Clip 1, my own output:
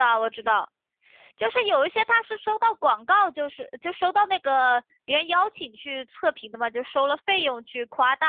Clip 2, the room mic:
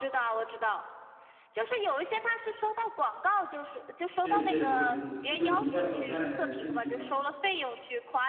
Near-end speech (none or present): present